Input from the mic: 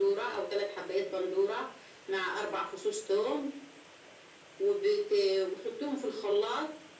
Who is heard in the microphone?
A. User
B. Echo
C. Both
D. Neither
B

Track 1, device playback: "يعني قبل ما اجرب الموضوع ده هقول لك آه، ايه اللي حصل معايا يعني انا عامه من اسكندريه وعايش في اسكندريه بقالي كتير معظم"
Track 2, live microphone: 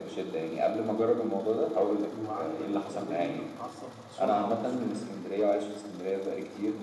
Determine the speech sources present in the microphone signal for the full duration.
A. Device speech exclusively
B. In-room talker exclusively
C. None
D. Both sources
D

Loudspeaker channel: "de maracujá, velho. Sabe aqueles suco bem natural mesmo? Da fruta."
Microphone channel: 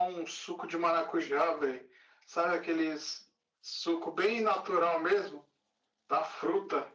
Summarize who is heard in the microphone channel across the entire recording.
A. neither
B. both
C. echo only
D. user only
C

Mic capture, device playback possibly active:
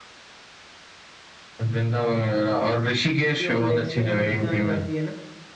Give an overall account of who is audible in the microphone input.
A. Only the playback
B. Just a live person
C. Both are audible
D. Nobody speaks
C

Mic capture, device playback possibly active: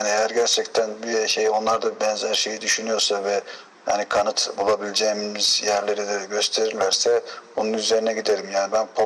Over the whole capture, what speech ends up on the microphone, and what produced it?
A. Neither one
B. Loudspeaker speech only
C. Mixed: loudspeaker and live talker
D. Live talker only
B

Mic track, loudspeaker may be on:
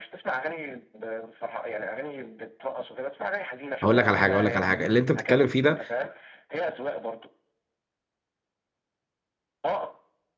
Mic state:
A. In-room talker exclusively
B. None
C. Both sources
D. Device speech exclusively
C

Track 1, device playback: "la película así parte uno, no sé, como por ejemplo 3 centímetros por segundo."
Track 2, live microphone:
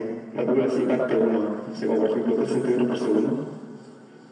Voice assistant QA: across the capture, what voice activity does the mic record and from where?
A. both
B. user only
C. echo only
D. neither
C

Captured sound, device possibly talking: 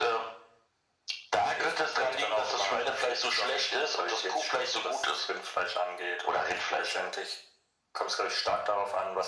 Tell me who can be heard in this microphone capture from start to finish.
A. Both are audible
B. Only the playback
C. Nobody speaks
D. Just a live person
B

